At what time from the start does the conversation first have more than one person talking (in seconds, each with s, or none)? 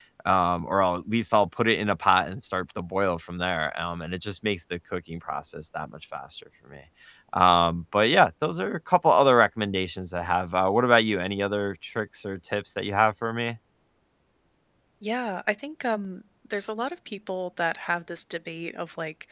none